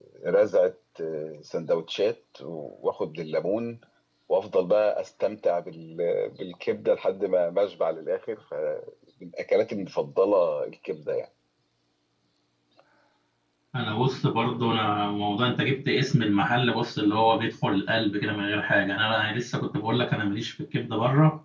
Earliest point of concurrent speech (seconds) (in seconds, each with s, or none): none